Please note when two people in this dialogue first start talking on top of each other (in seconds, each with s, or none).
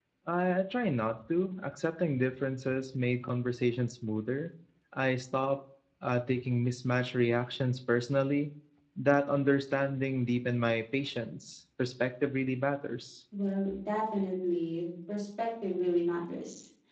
none